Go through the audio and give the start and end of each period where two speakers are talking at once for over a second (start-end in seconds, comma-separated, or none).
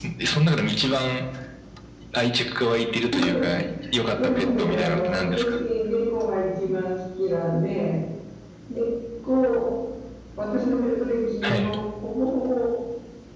4.2-5.6